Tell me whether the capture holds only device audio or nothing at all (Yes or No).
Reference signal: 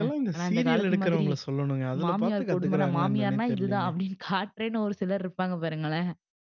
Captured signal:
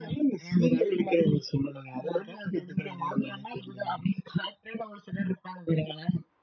Yes